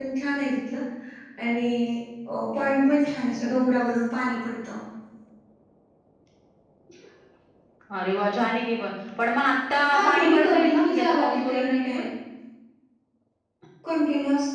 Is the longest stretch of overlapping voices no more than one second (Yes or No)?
No